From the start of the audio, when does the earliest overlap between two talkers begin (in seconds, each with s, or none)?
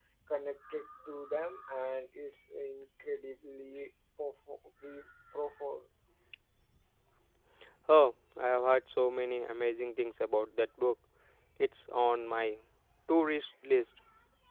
none